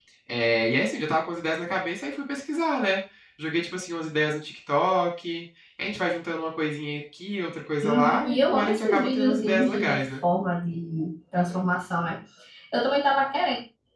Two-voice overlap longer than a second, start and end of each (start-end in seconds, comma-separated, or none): 7.8-10.1